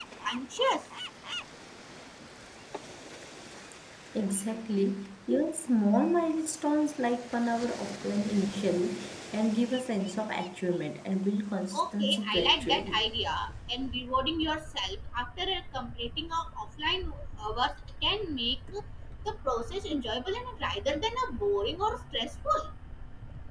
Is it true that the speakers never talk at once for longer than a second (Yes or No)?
No